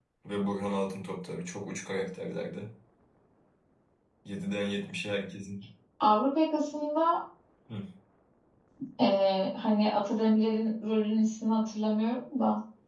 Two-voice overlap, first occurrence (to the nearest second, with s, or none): none